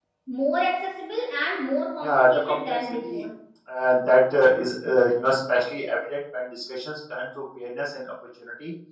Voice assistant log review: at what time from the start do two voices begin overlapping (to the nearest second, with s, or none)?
2 s